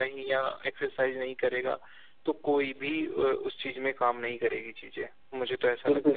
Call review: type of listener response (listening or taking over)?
taking over